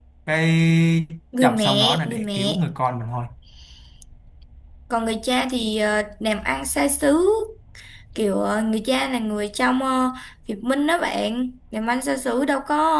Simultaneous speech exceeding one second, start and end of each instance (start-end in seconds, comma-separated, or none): 1.4-2.6